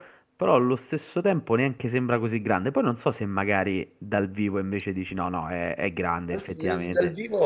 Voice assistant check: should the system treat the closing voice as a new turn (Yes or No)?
Yes